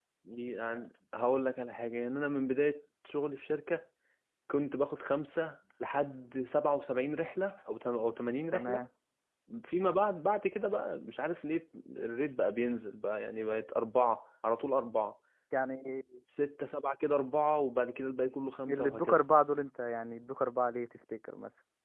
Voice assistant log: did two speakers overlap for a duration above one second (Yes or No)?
No